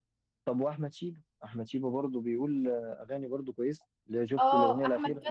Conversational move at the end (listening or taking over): taking over